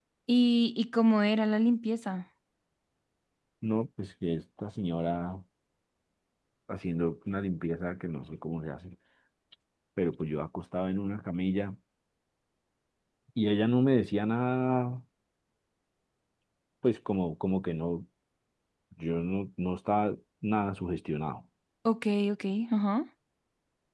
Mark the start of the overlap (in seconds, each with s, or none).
none